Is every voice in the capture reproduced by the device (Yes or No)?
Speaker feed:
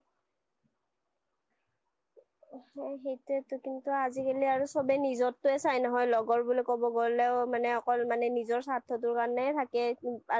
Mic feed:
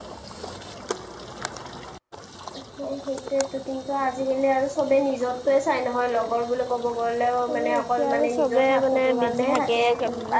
No